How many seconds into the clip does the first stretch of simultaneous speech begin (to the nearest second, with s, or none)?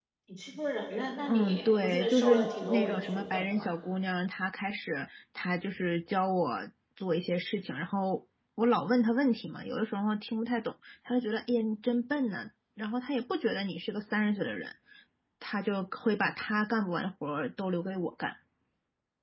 1 s